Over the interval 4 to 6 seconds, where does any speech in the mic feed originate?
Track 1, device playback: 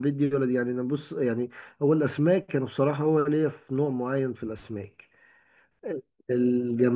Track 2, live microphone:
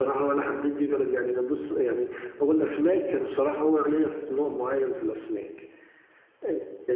echo only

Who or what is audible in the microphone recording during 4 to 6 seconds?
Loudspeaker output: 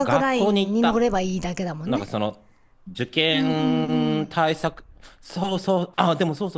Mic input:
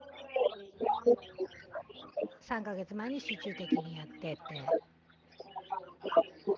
both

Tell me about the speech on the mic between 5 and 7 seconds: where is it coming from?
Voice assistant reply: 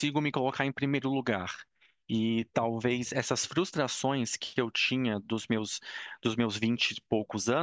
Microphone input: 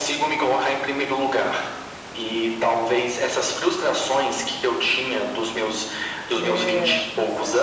both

